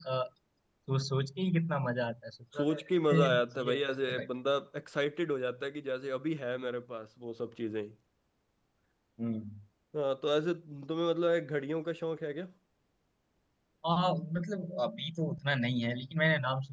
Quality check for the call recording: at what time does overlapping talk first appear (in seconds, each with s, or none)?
2.5 s